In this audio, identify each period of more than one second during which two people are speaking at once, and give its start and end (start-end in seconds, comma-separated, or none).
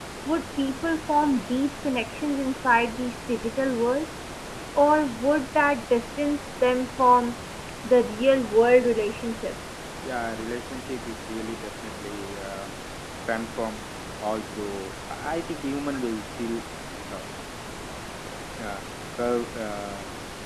none